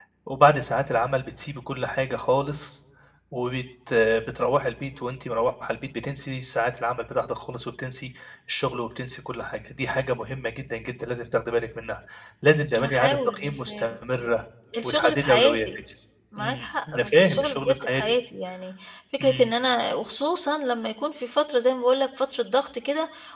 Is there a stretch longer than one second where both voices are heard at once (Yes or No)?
Yes